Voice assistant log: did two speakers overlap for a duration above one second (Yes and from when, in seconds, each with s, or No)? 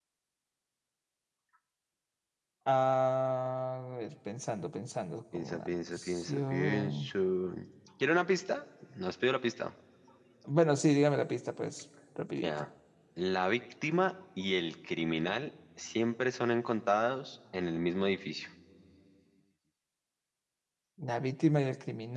Yes, from 5.3 s